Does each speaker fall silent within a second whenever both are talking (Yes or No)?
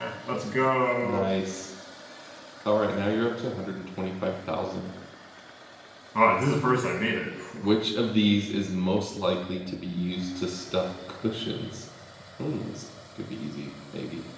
Yes